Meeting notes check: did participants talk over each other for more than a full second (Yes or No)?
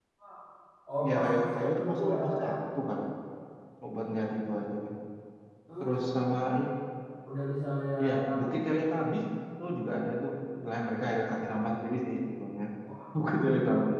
Yes